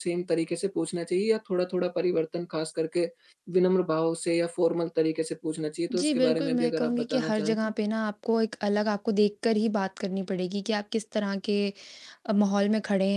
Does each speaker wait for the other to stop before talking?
No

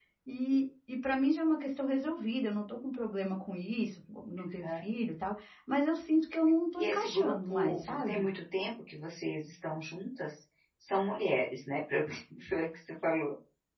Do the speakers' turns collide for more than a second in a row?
Yes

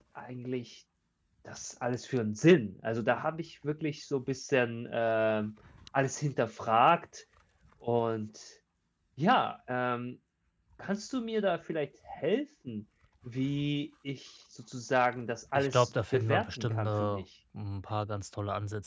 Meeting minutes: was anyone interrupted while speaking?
Yes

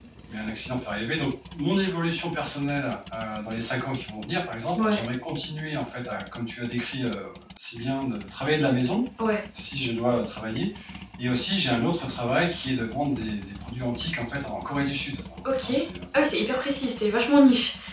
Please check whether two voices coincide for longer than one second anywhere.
No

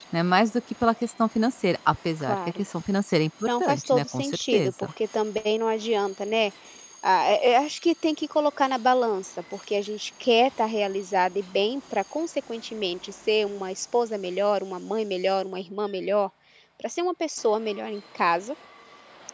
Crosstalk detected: Yes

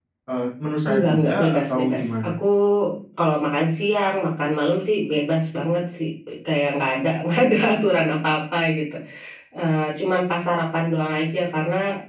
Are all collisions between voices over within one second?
No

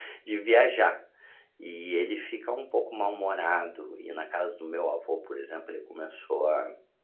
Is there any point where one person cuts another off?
No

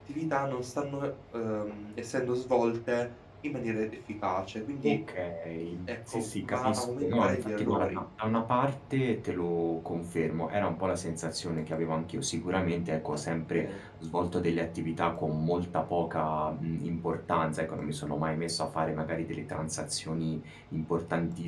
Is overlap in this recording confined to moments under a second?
No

